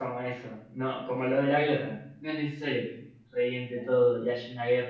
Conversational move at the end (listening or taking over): listening